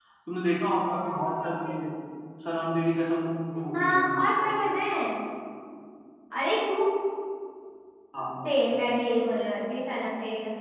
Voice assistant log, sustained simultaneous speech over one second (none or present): none